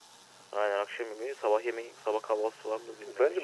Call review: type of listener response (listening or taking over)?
taking over